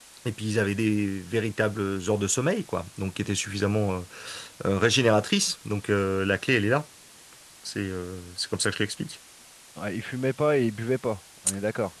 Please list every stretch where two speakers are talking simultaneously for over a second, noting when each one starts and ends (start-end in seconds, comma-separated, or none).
none